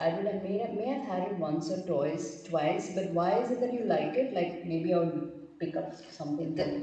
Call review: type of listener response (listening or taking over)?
taking over